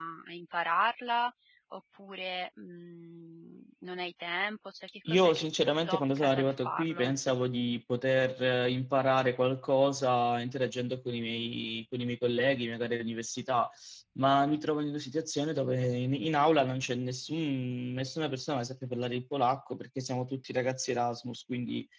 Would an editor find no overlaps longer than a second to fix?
No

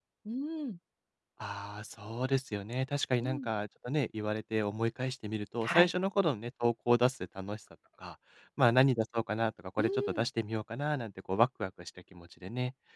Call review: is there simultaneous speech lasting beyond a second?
No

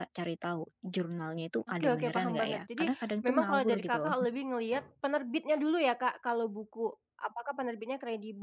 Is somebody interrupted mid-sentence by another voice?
Yes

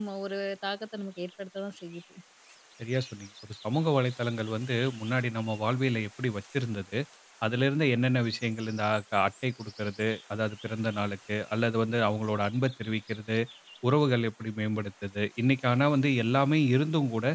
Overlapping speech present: No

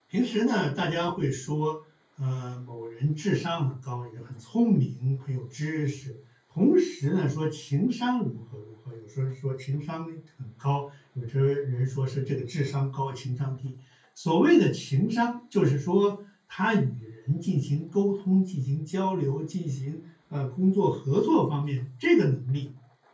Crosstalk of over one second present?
No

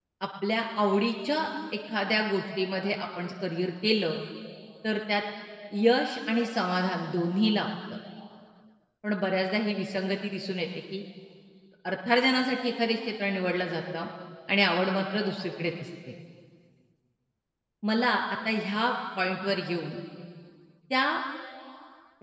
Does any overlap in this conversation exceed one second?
No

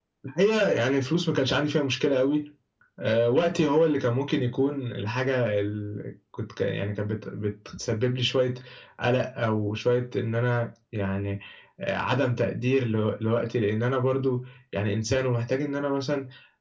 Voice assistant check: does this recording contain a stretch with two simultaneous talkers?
No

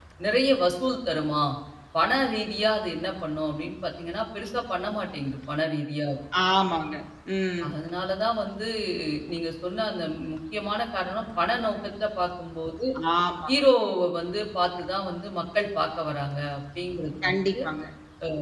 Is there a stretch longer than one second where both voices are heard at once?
No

